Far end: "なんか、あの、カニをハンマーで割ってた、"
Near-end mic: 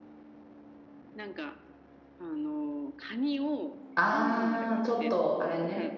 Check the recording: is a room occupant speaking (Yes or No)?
Yes